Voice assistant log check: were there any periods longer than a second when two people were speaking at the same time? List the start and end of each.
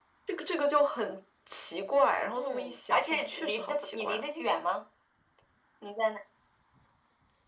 2.3-4.3

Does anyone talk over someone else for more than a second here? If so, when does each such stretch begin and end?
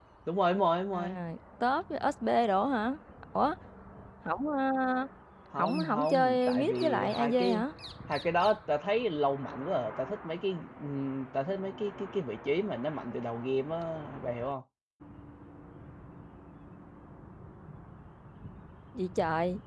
5.6-7.6

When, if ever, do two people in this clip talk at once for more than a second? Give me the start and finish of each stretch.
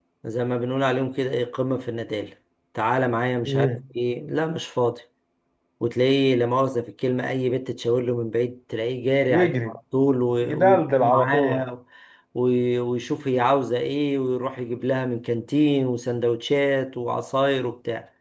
10.4-11.6

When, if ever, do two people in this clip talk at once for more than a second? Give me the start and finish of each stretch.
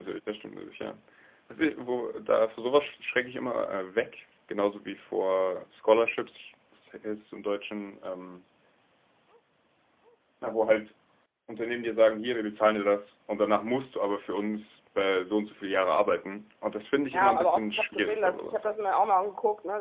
17.1-18.7

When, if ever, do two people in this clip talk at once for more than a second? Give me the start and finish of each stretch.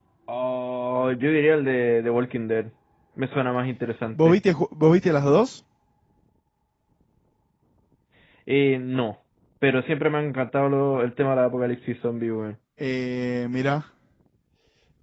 none

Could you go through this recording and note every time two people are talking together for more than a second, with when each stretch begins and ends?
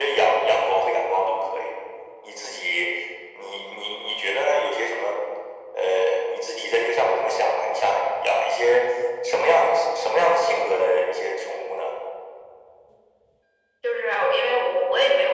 none

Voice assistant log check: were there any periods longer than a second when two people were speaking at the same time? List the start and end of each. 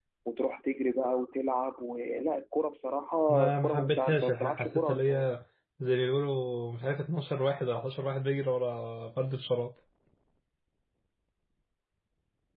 3.3-5.3

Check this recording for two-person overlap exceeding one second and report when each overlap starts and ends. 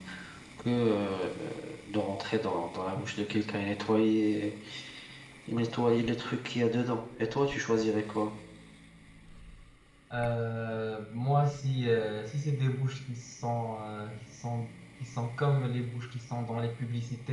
none

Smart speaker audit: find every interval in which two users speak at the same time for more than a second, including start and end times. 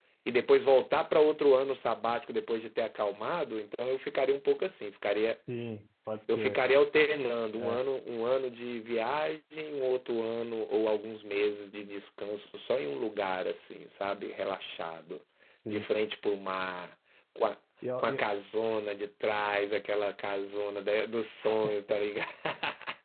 none

